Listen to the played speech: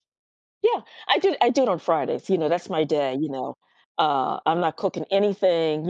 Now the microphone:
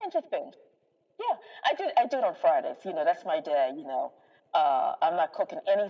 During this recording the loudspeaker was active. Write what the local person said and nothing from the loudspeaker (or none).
none